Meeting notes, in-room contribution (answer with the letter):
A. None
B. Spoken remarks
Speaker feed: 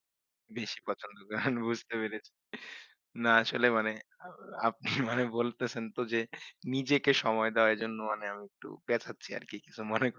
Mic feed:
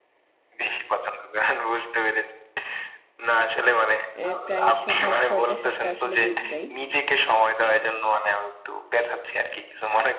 B